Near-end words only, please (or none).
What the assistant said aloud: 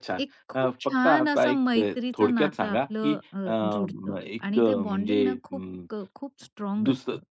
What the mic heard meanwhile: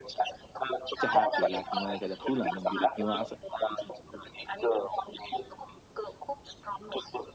चहा केला किंवा एखादं फुल आणून दिलं किंवा असं